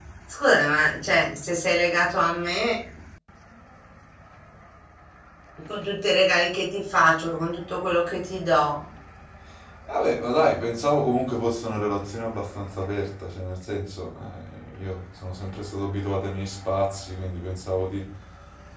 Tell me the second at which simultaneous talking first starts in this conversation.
none

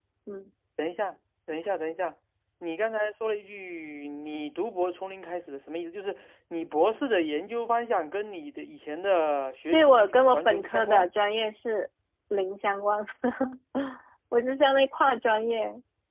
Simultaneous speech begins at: 9.7 s

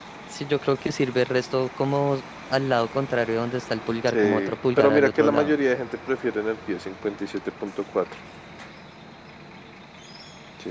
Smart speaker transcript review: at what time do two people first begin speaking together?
4.1 s

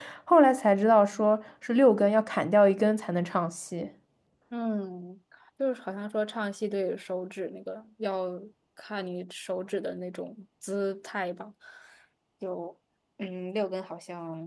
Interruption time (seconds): none

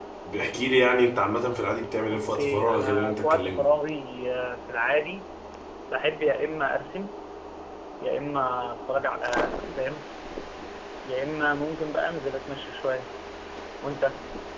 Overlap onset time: 2.1 s

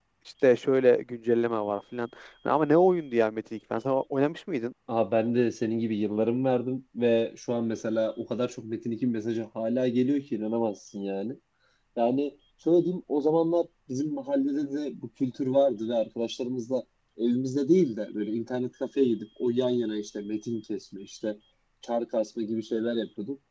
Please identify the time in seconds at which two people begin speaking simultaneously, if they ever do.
none

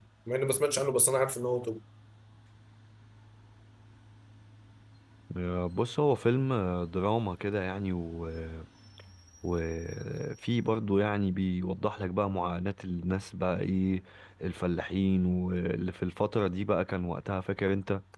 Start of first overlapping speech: none

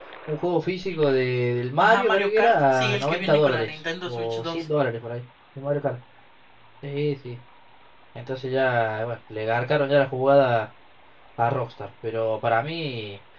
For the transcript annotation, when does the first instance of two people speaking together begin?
1.8 s

